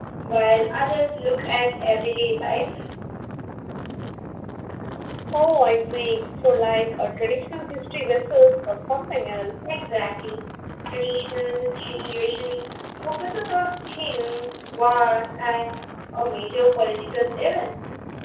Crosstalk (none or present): none